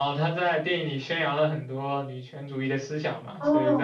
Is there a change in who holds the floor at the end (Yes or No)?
Yes